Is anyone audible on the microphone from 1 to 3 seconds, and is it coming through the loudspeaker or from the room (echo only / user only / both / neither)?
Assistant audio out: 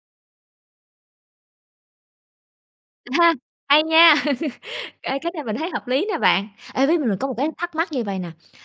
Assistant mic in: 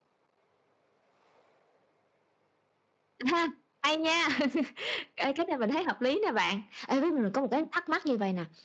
neither